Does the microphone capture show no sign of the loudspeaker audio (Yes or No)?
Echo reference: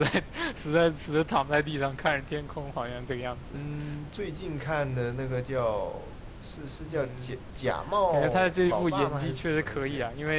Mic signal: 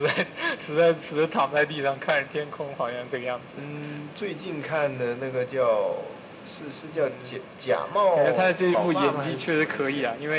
No